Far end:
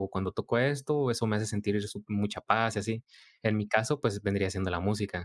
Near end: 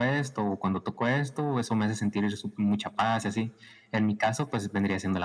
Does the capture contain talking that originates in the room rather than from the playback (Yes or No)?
No